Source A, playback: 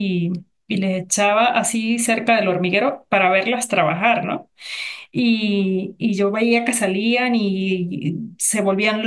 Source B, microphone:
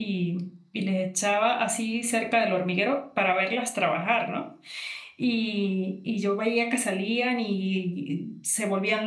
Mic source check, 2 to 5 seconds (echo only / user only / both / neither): echo only